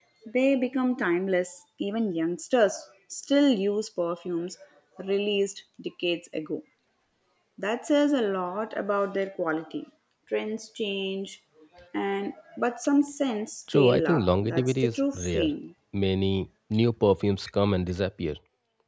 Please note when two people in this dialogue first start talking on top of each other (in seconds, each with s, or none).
13.7 s